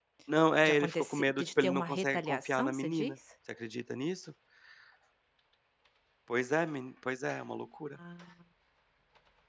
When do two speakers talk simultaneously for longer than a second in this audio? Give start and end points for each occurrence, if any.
0.6-3.2

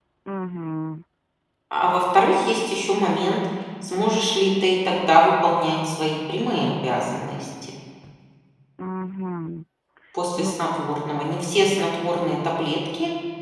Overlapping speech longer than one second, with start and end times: none

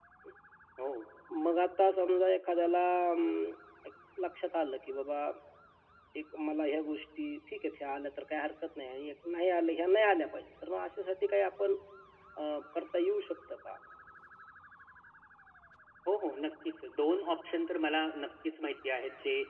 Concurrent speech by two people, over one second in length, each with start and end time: none

